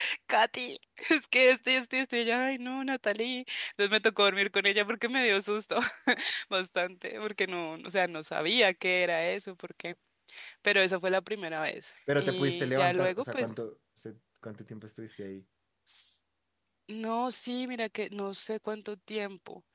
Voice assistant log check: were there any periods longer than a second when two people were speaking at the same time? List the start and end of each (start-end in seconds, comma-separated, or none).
12.2-13.6